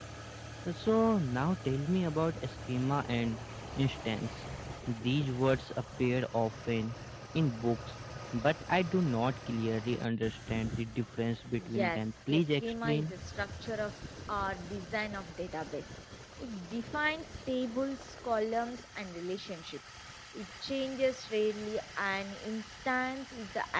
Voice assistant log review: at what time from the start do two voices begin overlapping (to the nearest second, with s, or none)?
12 s